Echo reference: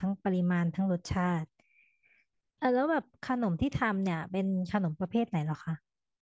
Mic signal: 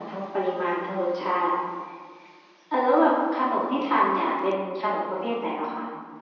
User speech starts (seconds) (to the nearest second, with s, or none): none